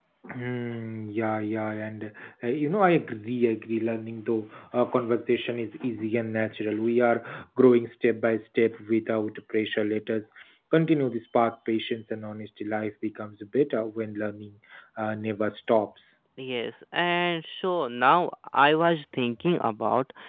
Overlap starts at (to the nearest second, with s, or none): none